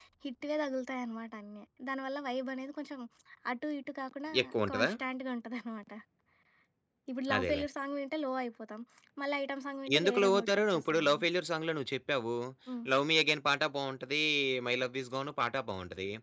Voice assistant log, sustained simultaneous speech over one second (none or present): present